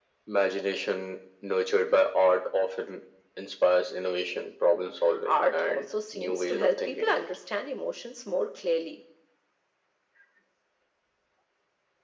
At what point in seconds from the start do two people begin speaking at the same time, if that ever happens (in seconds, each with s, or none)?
5.0 s